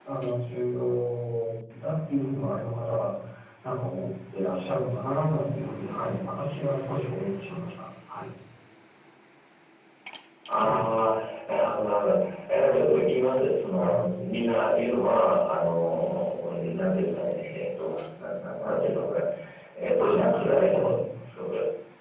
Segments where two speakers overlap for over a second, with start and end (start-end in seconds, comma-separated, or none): none